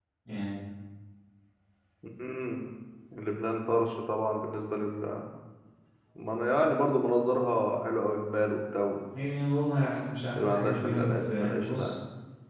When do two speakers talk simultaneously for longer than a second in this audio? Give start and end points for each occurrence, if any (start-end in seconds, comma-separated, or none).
10.4-11.9